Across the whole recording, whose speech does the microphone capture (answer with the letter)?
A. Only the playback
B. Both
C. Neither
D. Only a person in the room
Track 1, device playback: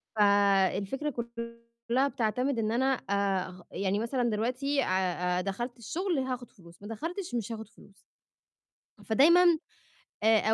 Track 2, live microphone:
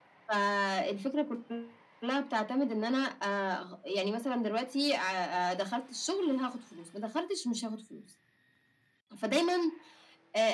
A